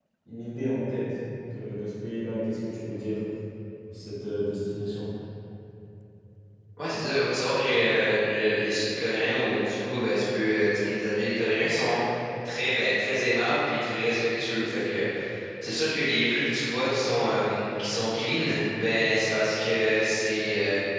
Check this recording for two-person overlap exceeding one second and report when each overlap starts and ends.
none

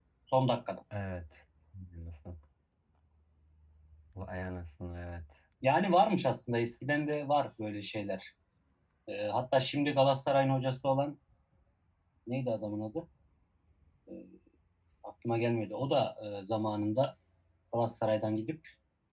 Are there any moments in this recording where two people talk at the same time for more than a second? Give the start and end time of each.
none

